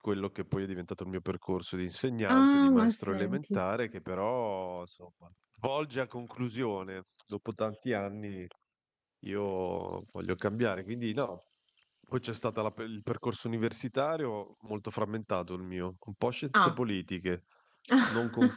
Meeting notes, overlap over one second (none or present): present